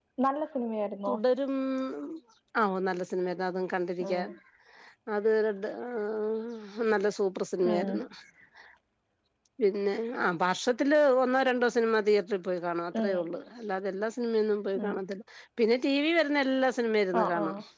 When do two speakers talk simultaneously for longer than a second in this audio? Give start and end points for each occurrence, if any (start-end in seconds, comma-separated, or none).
none